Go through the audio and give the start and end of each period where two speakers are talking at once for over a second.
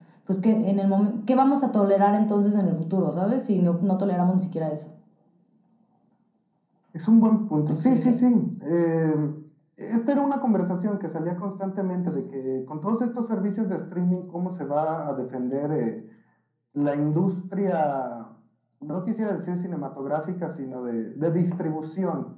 none

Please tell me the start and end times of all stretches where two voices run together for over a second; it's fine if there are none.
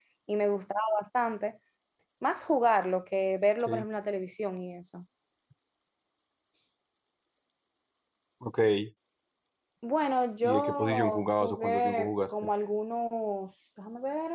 10.4-12.3

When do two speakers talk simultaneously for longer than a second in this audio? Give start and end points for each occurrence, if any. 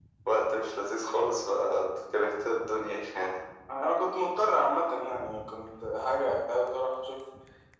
none

